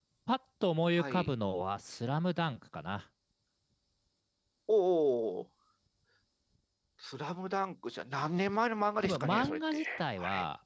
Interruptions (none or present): present